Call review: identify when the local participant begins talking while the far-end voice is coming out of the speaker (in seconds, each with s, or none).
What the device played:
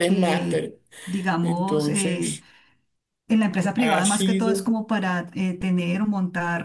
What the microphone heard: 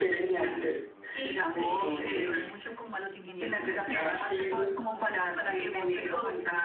1.1 s